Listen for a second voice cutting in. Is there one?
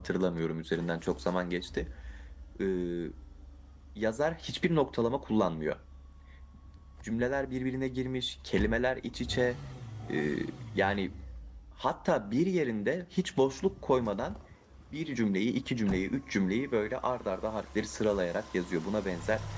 No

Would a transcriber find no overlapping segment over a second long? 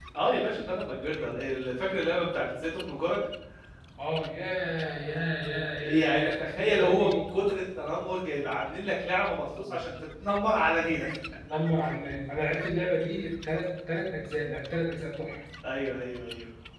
No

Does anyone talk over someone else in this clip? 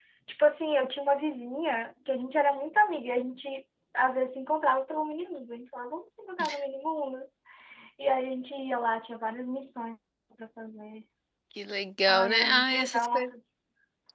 Yes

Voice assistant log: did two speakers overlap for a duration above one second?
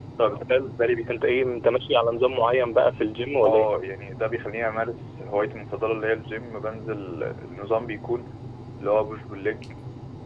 No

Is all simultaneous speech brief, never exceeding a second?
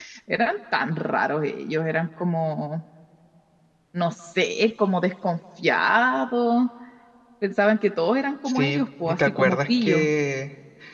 No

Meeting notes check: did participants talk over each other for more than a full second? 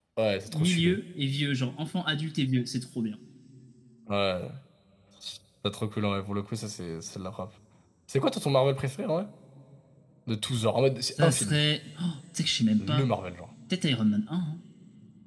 No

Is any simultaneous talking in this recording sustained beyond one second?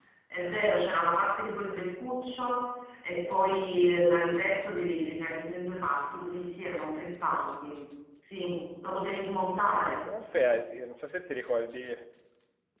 No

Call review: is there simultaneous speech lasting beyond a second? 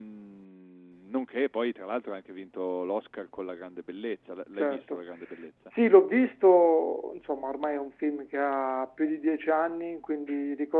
No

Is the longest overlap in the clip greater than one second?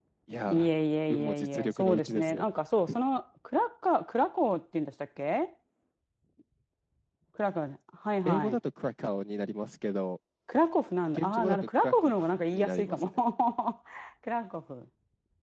Yes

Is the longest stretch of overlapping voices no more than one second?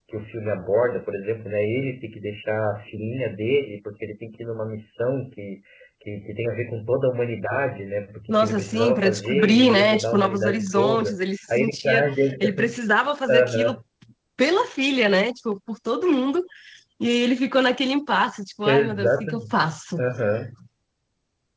No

